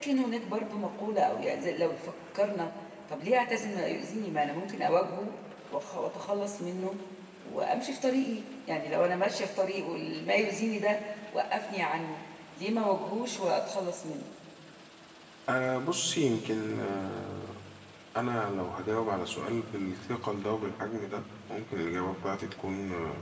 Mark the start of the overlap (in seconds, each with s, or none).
none